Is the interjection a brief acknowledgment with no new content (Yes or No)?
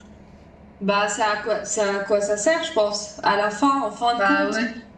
Yes